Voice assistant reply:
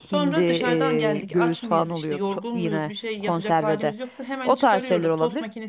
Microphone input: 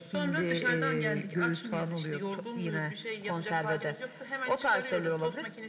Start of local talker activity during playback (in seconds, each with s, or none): none